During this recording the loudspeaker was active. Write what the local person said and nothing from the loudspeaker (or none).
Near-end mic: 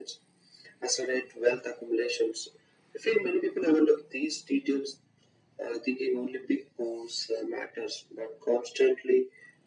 none